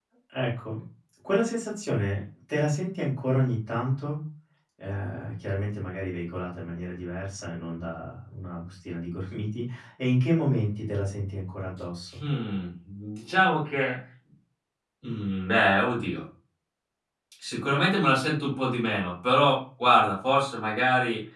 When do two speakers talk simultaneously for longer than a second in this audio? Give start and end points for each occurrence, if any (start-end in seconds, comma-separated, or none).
none